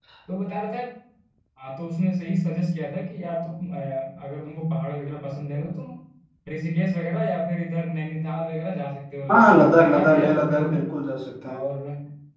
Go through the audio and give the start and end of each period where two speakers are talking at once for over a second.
9.3-10.9

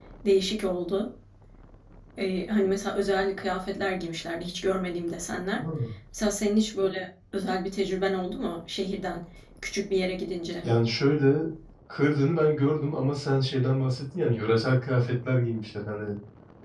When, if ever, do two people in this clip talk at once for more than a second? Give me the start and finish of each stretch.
none

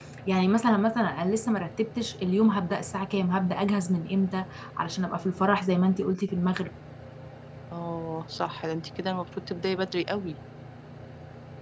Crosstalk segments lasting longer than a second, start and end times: none

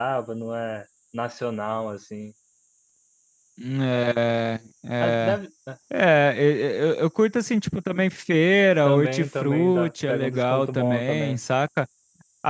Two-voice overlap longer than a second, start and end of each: 8.8-11.4

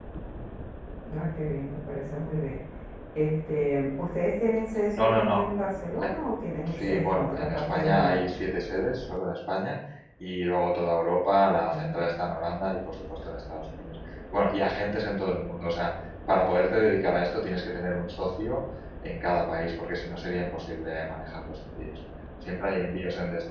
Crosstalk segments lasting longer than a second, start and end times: 6.7-8.2

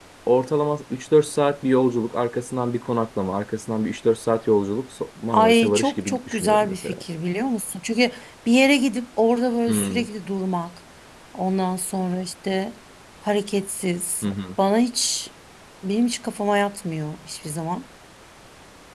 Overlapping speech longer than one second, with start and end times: 5.3-7.0

